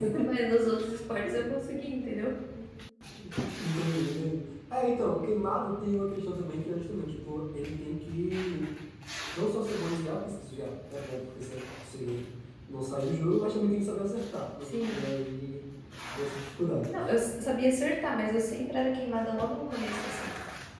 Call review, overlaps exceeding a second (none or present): none